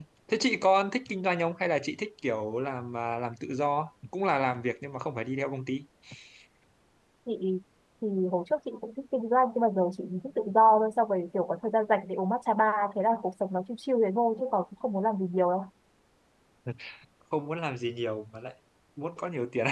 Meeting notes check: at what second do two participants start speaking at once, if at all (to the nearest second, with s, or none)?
none